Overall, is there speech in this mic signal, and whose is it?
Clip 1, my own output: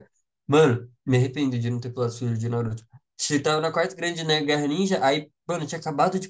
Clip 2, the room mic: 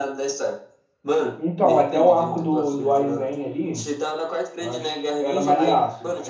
both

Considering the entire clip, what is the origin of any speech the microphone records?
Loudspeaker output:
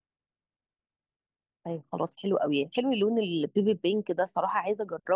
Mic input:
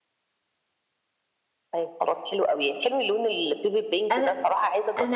both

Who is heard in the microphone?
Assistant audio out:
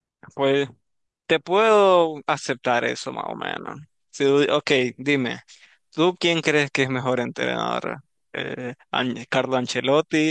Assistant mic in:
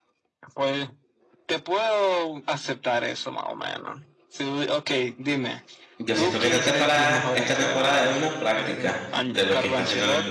both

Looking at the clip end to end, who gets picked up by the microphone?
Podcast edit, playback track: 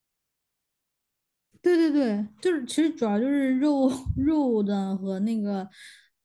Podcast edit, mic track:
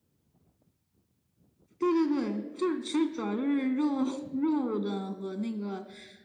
echo only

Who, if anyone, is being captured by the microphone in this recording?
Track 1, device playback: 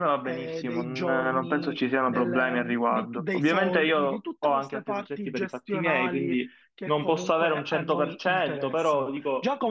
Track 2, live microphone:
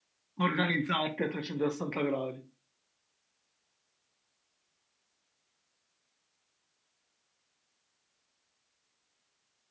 user only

